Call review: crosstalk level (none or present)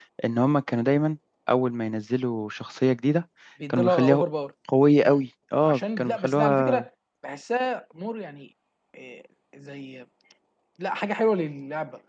present